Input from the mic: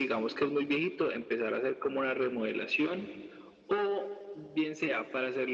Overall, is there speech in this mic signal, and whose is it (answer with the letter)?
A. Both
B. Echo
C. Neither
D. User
B